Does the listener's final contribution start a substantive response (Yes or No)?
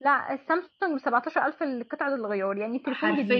Yes